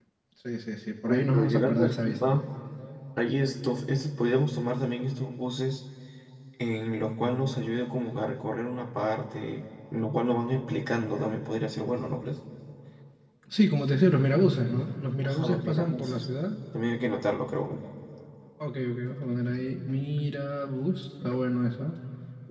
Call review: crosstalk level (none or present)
present